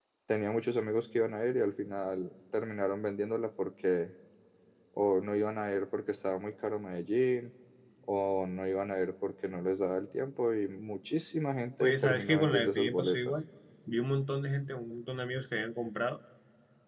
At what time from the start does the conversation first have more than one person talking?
11.8 s

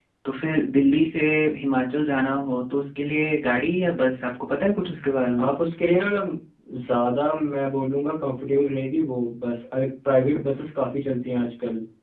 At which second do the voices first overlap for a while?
none

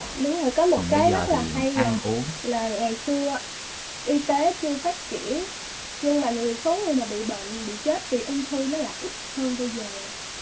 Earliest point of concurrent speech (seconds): 0.8 s

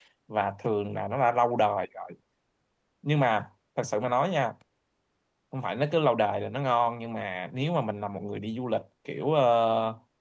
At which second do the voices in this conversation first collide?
none

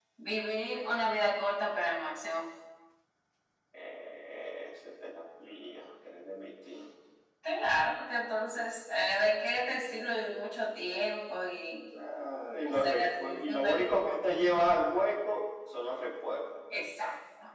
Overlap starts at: 12.6 s

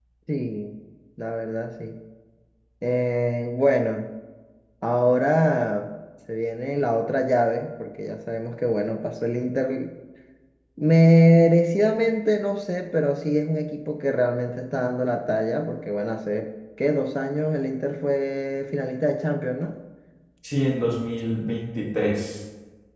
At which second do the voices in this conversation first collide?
none

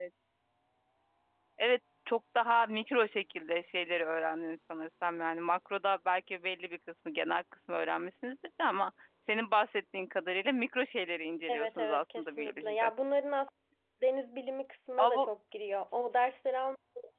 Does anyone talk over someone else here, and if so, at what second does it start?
11.5 s

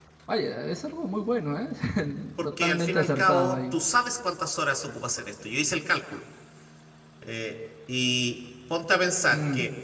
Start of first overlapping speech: 2.4 s

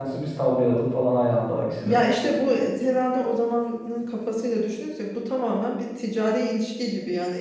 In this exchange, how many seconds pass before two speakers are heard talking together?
none

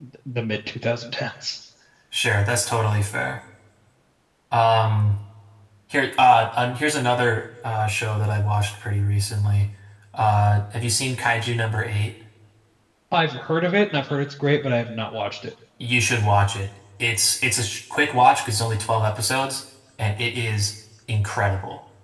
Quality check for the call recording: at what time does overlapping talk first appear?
none

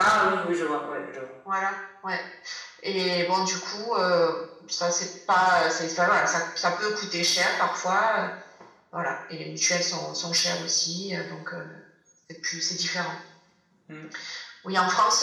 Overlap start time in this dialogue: none

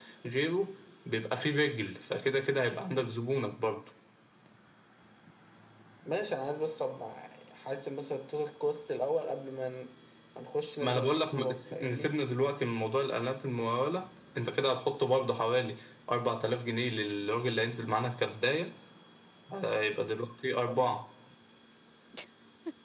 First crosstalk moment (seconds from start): 10.8 s

